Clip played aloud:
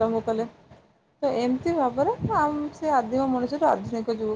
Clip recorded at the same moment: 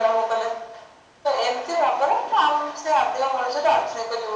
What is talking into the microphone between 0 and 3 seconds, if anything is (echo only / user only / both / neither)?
echo only